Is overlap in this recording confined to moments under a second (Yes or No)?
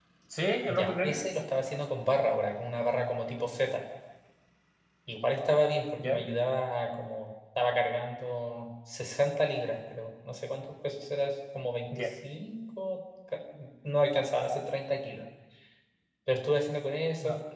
Yes